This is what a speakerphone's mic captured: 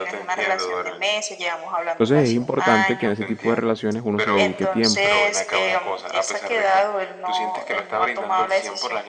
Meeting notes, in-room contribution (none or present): present